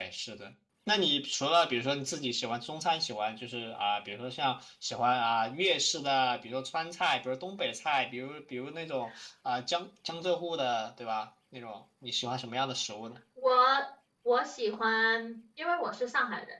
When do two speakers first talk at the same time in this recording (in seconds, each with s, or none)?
none